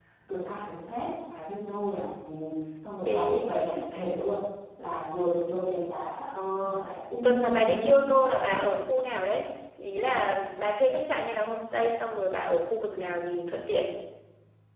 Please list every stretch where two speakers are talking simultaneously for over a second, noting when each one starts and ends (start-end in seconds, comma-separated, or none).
7.2-8.6